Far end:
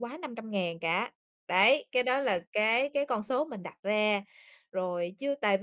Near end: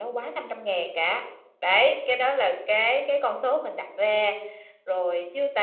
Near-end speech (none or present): none